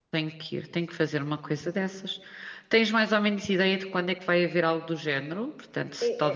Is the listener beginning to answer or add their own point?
Yes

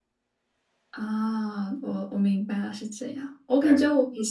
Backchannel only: Yes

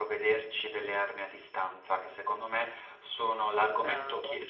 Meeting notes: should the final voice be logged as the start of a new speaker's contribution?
No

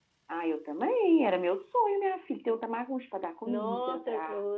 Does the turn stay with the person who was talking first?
No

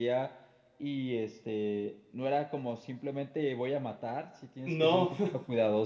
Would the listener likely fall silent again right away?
Yes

